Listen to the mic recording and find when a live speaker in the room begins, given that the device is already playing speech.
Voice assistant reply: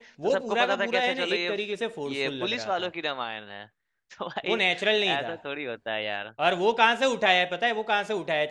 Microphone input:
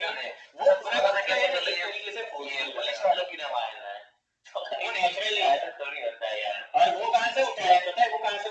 none

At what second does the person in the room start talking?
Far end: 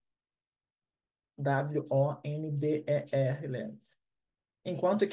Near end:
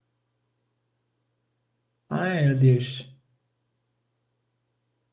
2 s

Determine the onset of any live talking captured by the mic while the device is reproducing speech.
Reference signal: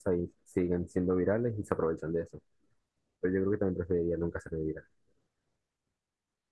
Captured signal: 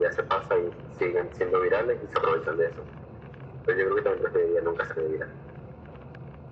none

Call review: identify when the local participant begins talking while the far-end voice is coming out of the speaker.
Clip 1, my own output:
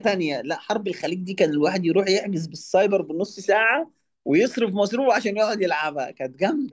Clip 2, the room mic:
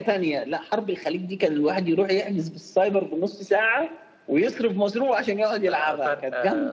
6 s

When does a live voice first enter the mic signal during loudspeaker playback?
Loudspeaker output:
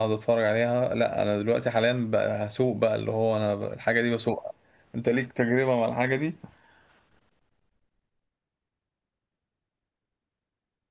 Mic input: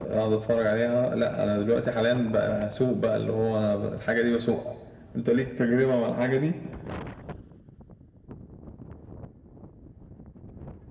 none

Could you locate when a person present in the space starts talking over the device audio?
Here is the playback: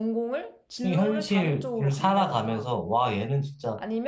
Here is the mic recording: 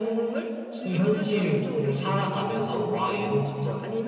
none

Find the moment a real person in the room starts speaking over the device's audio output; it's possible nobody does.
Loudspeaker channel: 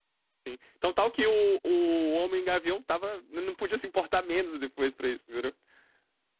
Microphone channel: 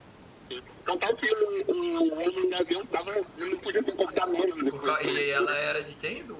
5 s

